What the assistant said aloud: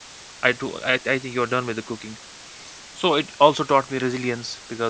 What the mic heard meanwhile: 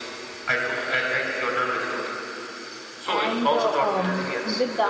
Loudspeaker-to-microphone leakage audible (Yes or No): Yes